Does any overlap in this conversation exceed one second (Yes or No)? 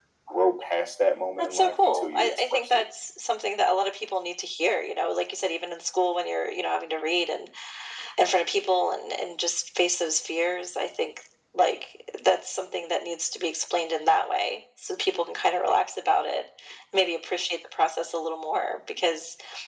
Yes